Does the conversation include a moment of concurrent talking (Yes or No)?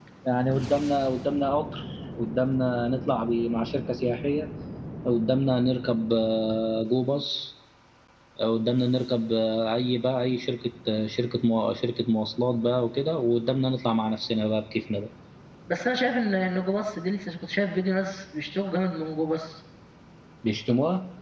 No